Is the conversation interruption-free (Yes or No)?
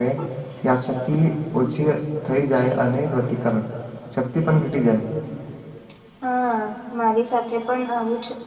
Yes